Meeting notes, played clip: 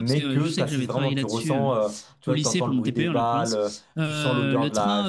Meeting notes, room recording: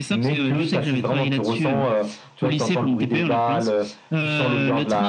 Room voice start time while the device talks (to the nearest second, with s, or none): none